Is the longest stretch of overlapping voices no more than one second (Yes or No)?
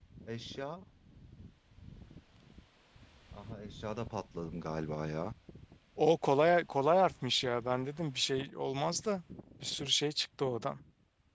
Yes